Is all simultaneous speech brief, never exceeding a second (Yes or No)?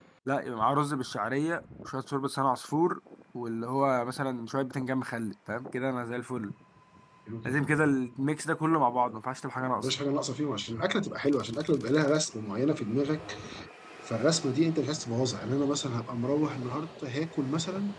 Yes